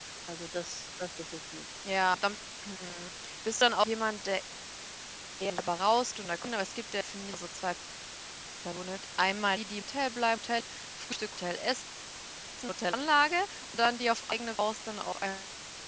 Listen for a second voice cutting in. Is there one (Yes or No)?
No